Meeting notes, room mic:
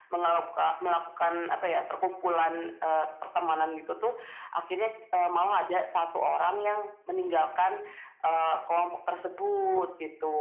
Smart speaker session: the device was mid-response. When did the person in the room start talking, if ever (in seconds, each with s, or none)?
none